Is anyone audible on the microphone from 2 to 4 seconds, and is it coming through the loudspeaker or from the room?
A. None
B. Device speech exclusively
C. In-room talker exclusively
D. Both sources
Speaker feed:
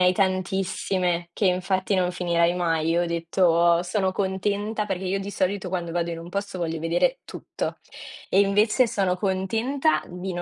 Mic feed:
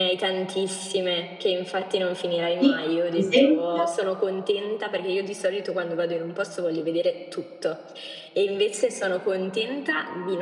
D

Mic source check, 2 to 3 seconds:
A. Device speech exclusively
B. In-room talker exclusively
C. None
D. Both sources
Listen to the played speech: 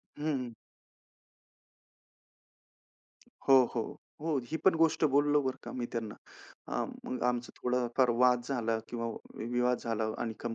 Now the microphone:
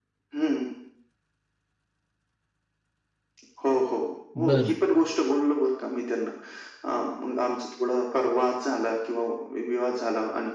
C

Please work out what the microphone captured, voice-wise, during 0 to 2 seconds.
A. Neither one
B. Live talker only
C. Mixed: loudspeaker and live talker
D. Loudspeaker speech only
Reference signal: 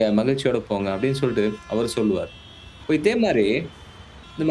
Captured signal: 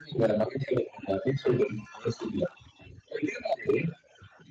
D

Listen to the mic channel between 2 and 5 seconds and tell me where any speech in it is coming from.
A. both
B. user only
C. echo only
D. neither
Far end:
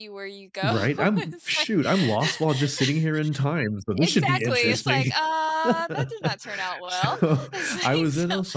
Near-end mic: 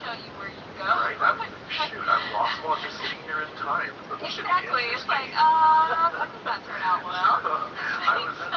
C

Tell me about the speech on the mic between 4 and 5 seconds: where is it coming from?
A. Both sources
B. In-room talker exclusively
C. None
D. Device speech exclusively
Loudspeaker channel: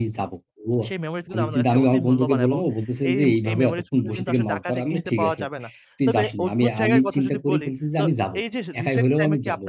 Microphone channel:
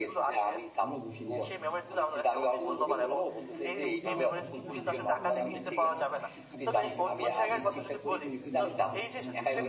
A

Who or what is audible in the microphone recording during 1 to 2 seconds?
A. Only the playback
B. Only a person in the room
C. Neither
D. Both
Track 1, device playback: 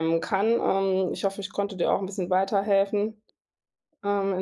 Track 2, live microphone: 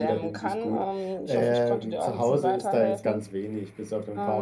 D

